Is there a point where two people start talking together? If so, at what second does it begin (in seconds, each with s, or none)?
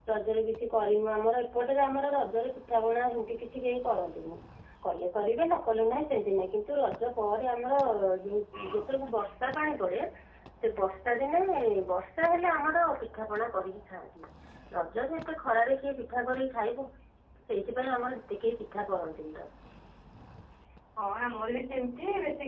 none